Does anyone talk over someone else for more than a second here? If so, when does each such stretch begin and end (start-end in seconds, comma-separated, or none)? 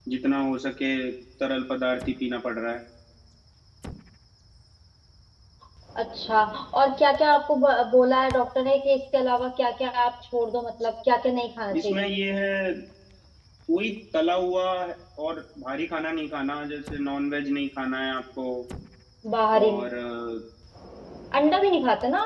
none